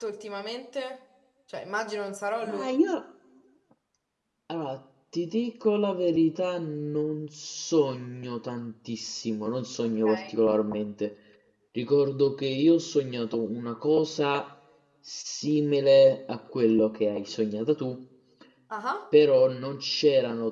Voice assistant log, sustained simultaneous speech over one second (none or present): none